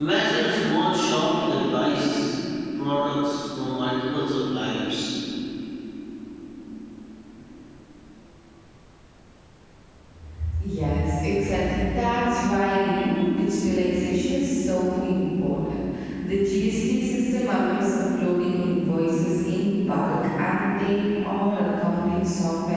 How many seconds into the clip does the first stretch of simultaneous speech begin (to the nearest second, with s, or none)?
none